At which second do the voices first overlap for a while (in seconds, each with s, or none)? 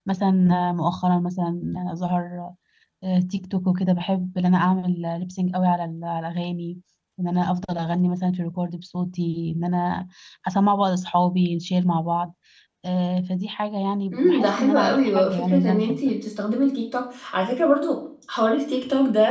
14.1 s